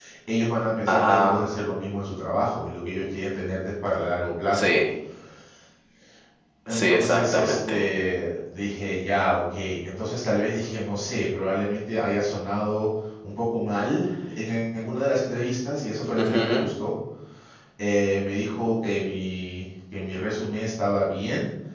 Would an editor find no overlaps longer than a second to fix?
No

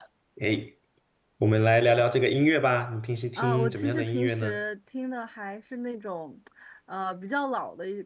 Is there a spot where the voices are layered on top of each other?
Yes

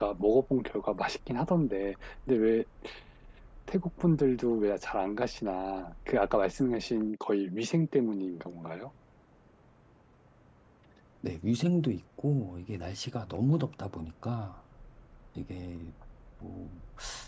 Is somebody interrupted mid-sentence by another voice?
No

